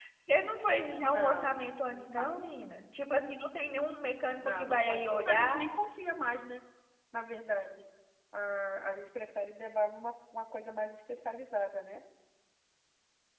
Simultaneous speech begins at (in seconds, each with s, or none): 1.0 s